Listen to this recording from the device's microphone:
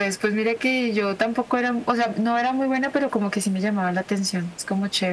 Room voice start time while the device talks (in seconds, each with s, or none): none